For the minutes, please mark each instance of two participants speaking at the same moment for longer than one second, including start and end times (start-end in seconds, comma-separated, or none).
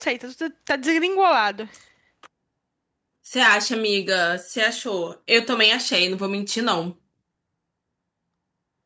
none